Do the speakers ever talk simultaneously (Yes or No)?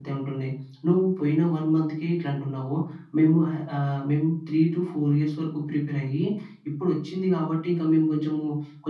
No